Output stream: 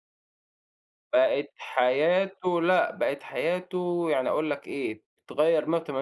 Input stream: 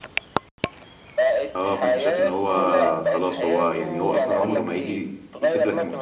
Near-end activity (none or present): present